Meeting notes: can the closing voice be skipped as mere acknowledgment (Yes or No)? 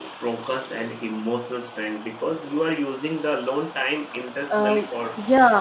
No